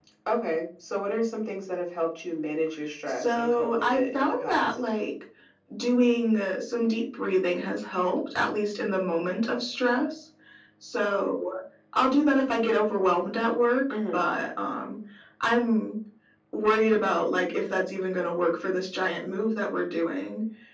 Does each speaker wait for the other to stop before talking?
No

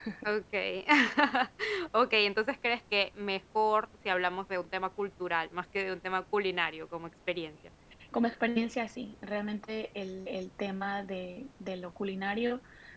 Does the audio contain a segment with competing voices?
No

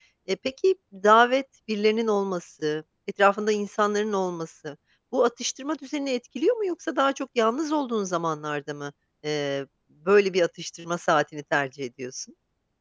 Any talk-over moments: No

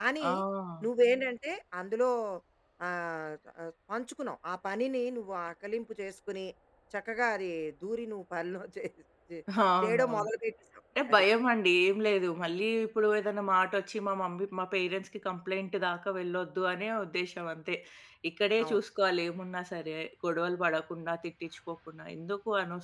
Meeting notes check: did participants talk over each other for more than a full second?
No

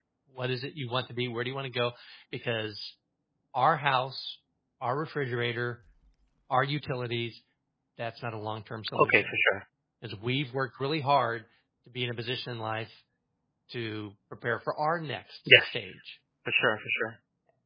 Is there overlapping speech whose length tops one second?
No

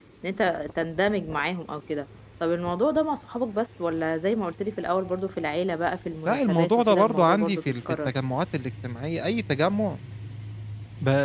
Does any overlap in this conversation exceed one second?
Yes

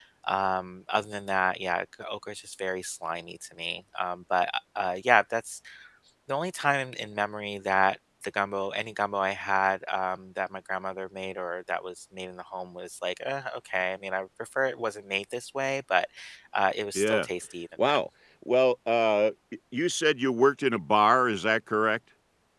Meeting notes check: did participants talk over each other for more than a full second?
No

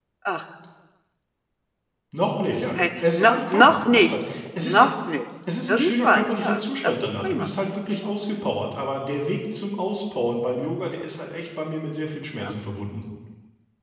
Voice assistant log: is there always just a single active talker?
No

